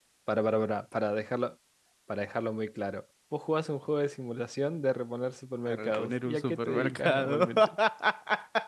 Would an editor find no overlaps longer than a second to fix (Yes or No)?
No